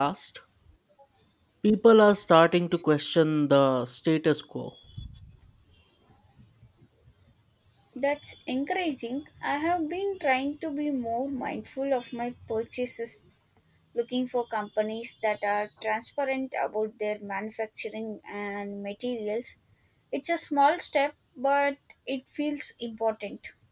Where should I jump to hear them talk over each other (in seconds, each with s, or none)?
none